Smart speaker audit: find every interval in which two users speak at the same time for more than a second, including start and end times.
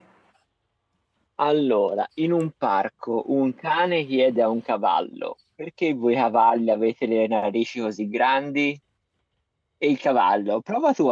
none

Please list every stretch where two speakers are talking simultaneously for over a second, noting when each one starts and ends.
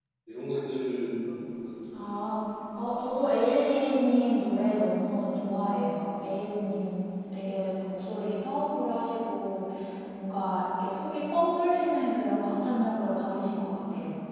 none

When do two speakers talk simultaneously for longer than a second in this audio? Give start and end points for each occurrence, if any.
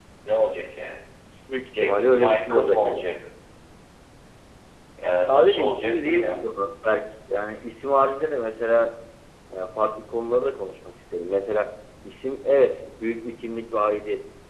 1.8-3.1, 5.1-6.4

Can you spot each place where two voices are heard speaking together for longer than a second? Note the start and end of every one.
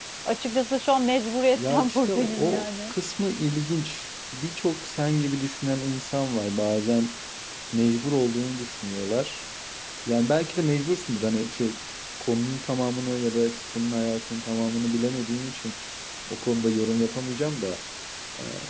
1.6-2.9

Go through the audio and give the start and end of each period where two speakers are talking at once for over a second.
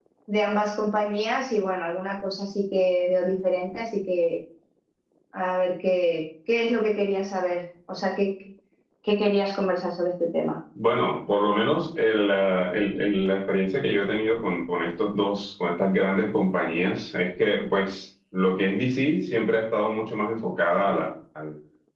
none

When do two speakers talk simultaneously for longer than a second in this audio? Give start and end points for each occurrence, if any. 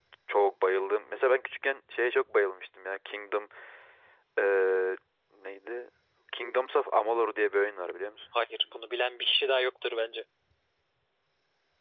none

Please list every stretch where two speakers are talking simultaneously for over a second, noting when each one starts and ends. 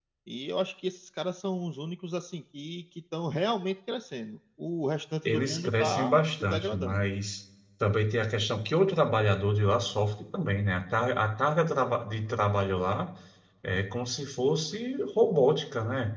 5.2-7.1

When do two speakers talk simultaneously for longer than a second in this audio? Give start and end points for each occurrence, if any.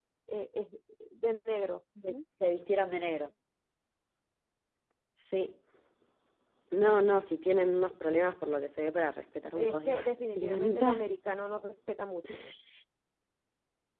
9.6-11.0

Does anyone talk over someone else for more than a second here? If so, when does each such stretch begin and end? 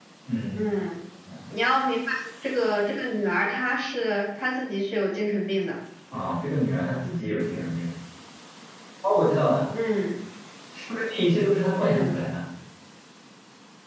none

